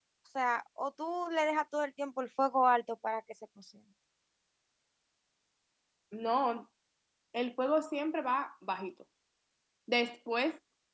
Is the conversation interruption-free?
Yes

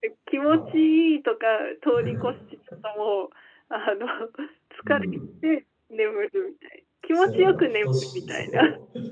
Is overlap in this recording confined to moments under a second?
No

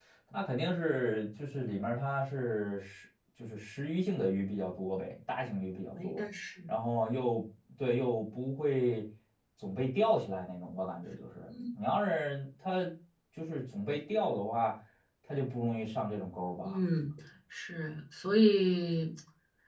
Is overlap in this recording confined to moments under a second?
Yes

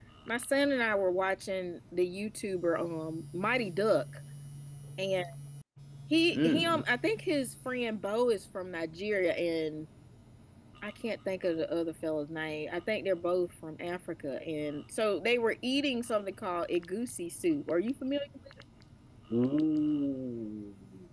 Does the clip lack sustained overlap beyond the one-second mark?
Yes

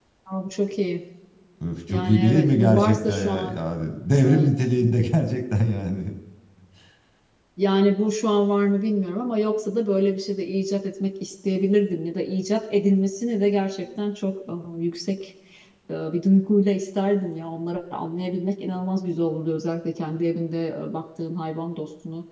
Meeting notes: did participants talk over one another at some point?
Yes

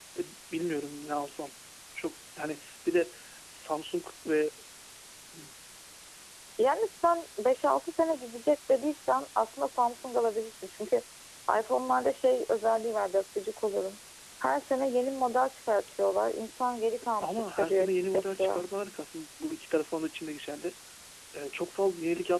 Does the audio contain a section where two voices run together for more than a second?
Yes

